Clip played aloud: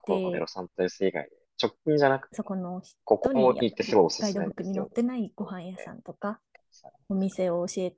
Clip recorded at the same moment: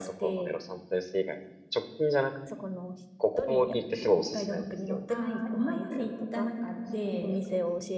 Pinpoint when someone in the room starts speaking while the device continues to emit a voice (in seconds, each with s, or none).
5.1 s